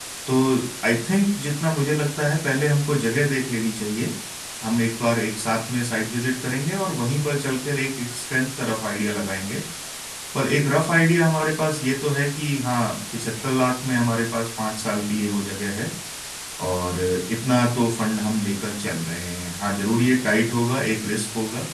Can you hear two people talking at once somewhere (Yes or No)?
No